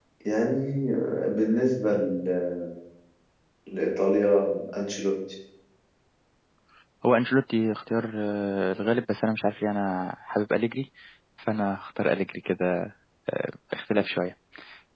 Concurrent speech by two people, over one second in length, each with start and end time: none

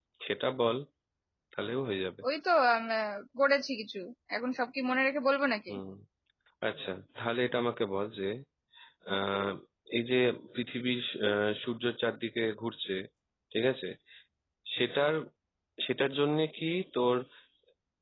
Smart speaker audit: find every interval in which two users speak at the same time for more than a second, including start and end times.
none

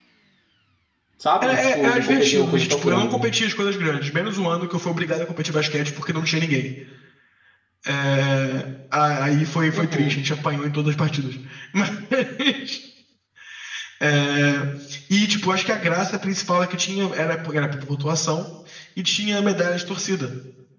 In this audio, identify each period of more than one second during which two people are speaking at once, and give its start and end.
1.4-3.3

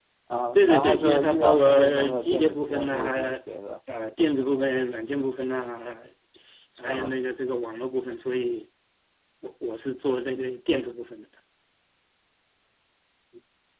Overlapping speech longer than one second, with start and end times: 0.6-3.4

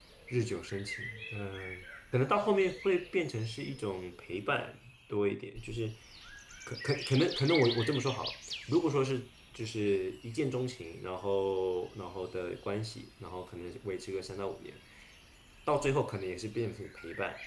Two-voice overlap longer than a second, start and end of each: none

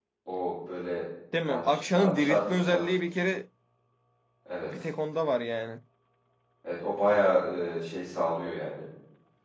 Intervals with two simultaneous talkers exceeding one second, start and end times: 1.5-2.8

